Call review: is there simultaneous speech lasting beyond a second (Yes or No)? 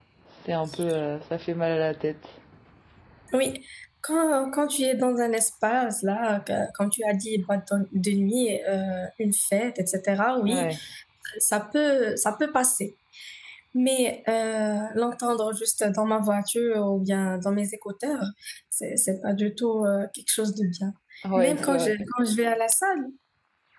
No